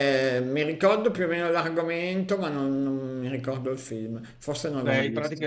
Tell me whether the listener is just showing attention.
No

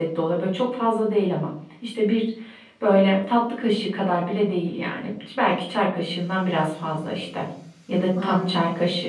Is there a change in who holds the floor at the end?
No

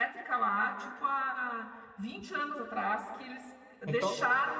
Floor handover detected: No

